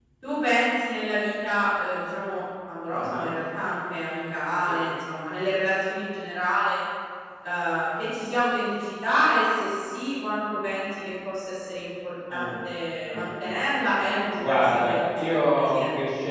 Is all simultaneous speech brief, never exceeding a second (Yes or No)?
No